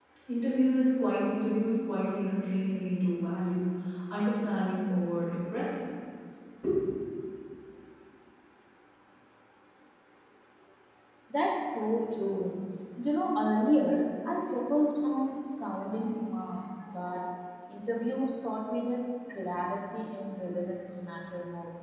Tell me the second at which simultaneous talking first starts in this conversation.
none

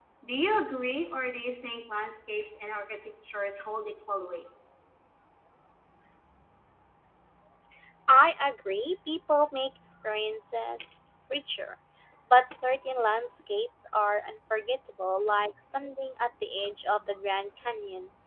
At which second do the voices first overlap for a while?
none

